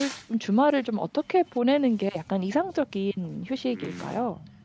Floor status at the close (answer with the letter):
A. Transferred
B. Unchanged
A